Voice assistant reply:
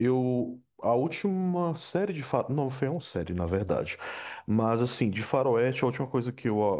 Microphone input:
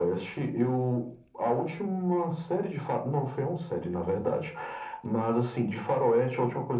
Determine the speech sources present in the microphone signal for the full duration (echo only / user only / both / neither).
echo only